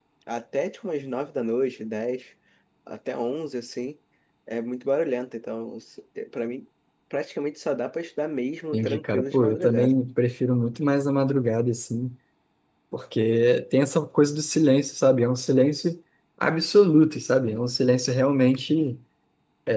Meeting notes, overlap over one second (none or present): present